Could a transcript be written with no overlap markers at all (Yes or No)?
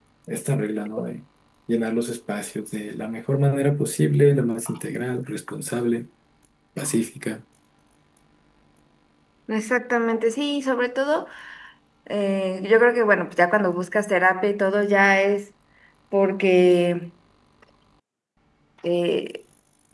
Yes